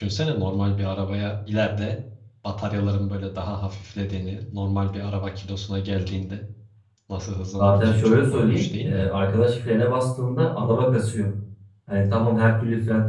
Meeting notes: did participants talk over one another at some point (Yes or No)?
Yes